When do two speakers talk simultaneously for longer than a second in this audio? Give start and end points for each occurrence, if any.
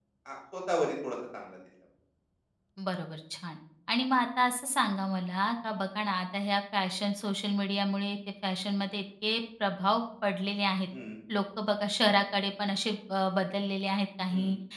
none

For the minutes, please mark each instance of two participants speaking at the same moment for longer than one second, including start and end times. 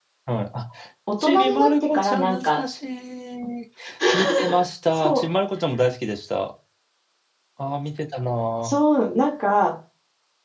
1.2-2.6

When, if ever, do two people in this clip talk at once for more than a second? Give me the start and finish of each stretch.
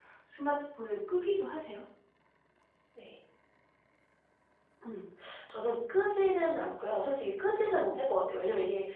none

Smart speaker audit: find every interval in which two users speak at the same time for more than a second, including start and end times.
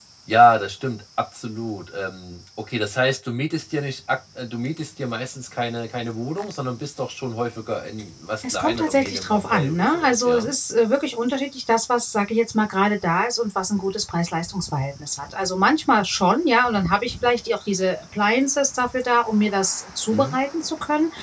8.5-10.5

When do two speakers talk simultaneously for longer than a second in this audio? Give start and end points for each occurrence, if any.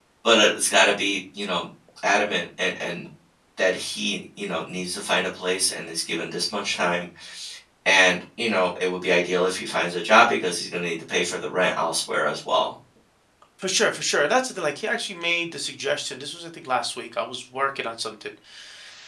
none

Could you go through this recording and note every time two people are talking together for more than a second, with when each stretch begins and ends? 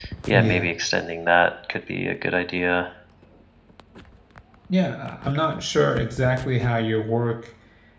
none

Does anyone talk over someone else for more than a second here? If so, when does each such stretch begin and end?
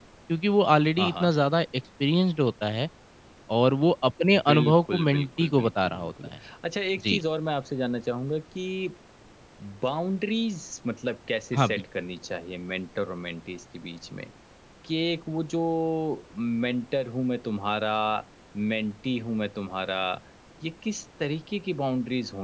4.5-6.3

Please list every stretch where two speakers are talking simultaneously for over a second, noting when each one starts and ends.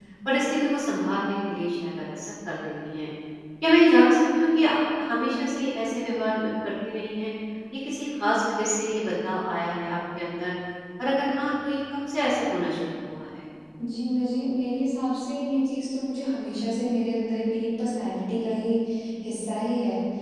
none

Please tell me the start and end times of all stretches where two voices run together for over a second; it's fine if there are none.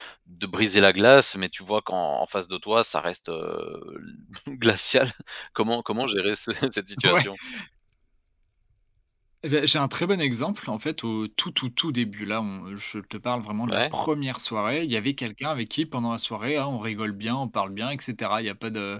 none

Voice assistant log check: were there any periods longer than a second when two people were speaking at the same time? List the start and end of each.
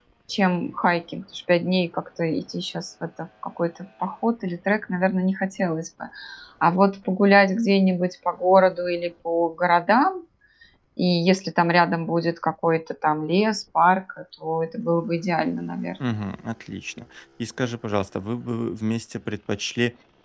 none

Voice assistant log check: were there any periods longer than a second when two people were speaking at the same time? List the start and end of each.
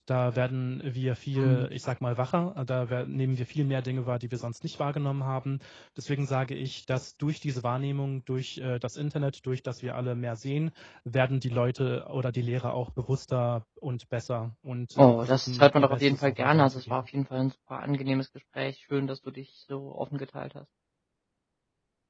15.0-17.0

